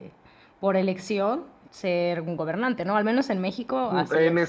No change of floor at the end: No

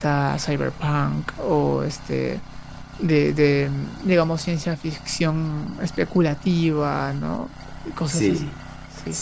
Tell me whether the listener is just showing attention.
No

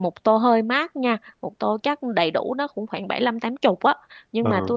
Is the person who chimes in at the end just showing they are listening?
Yes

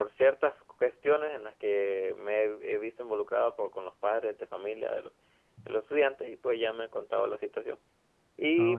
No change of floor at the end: Yes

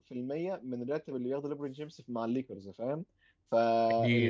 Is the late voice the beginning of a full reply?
No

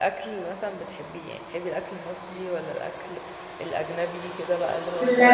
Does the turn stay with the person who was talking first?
No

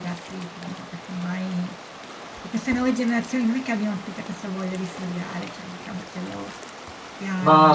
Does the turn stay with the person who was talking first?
No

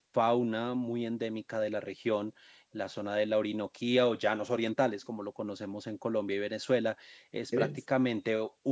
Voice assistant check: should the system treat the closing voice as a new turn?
No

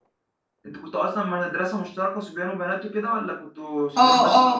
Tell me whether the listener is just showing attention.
No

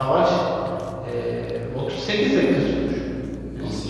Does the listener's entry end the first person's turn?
No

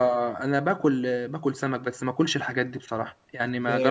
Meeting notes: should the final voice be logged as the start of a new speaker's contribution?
Yes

